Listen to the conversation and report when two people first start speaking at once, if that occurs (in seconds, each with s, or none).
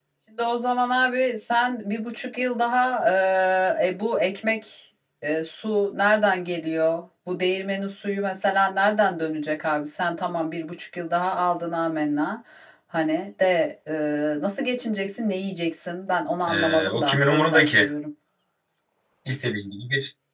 16.5 s